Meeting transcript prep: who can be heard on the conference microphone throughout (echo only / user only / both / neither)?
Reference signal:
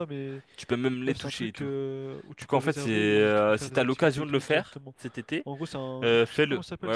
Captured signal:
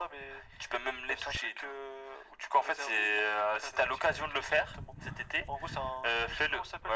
echo only